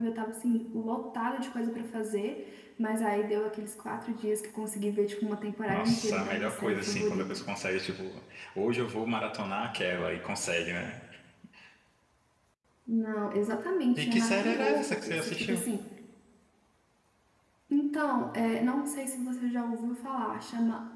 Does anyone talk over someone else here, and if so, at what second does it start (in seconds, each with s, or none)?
5.7 s